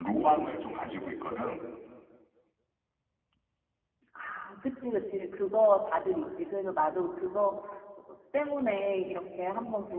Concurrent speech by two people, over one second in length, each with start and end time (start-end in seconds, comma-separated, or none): none